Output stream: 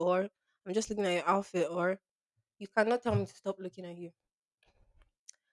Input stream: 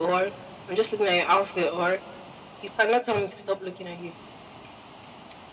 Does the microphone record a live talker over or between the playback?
No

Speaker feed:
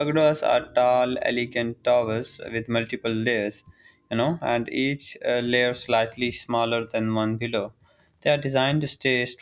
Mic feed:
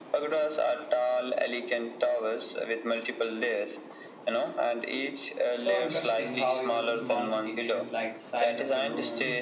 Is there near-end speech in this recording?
Yes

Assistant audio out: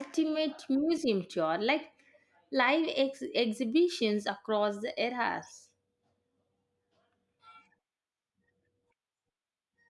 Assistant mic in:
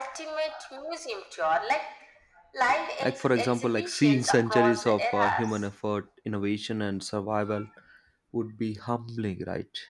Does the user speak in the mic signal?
Yes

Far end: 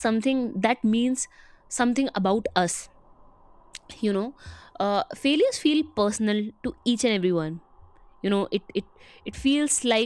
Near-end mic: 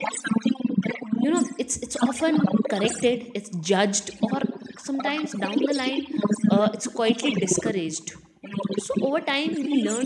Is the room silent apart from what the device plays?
No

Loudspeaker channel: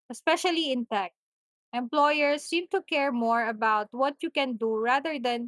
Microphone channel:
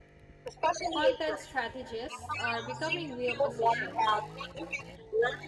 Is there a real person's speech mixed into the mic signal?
Yes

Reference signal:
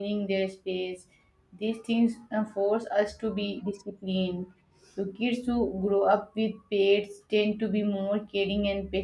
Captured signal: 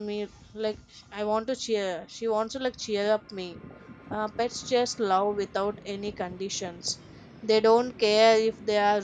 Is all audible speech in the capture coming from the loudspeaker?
No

